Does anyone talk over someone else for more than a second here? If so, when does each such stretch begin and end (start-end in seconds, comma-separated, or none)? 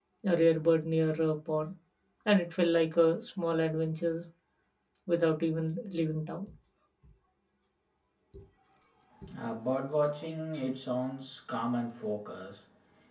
none